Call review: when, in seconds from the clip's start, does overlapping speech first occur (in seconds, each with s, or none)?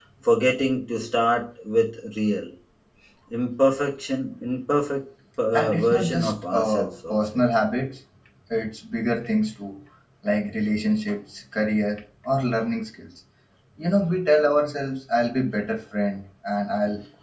5.5 s